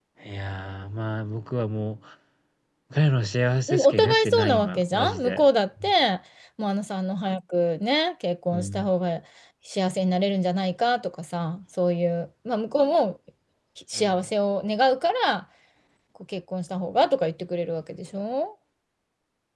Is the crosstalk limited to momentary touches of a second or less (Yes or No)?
No